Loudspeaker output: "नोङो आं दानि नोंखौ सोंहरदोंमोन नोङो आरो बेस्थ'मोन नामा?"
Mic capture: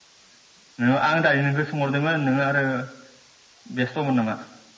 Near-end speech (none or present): none